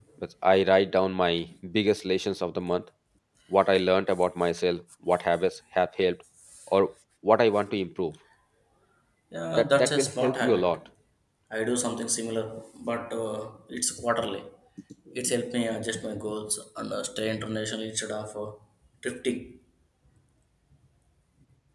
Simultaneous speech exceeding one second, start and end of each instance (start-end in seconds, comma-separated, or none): 9.6-10.8